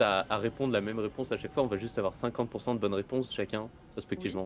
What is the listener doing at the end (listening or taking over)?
listening